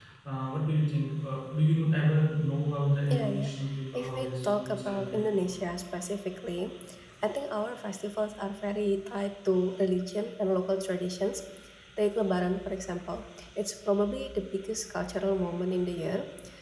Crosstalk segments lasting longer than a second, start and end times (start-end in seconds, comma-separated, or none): 3.9-5.2